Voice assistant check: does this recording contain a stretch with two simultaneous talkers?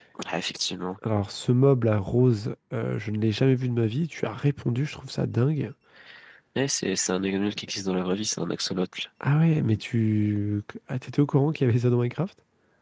No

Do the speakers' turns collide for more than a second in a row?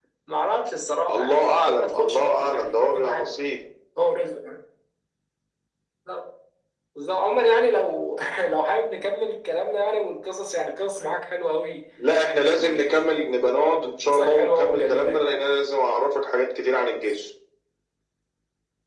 Yes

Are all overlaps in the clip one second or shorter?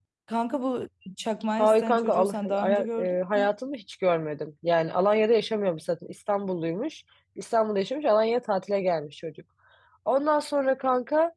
No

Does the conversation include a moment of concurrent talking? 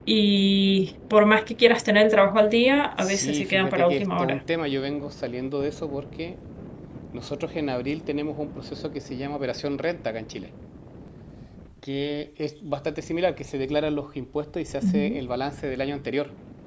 Yes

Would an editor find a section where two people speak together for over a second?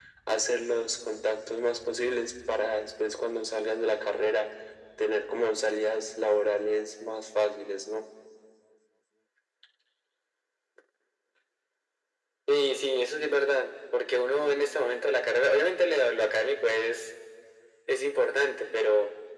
No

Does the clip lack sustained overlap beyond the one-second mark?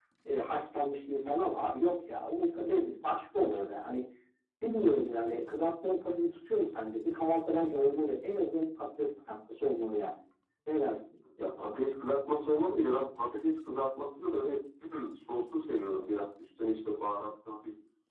Yes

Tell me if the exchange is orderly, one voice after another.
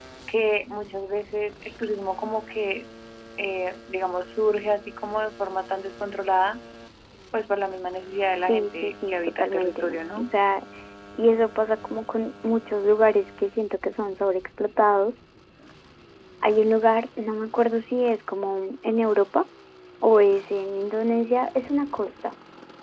No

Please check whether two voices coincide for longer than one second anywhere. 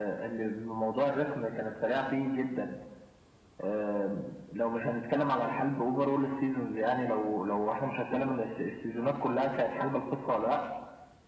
No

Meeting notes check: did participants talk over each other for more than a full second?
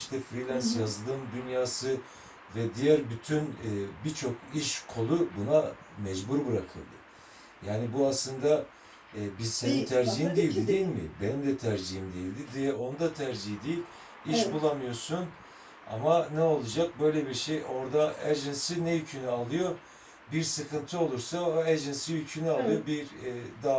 Yes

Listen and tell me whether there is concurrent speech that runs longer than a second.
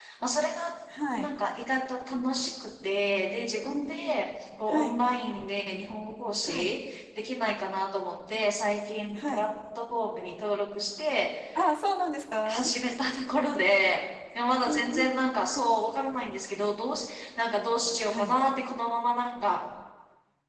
No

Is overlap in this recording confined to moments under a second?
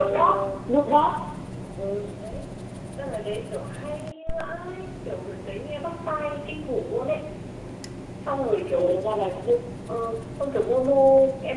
Yes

